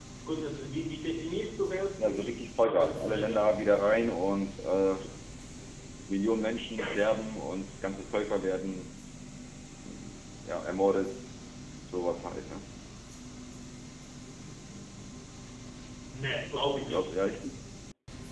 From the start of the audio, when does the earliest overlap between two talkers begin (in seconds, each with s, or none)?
2.0 s